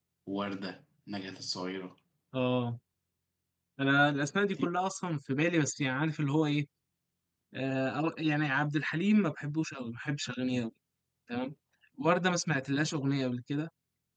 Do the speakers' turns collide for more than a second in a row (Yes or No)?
No